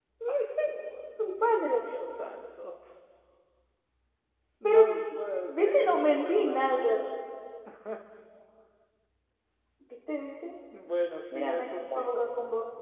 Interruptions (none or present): present